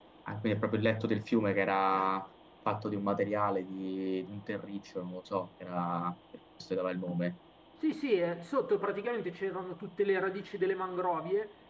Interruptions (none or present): none